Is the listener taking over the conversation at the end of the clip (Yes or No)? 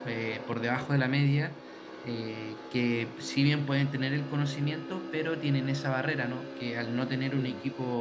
No